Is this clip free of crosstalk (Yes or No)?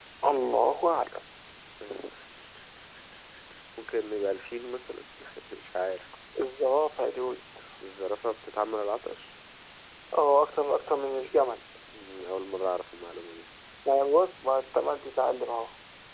Yes